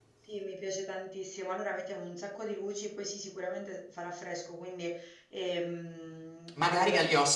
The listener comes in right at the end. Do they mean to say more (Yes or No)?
Yes